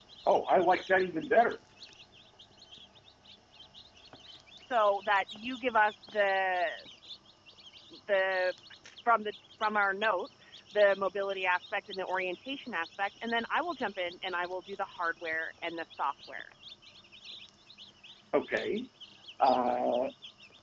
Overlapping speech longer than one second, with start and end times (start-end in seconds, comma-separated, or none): none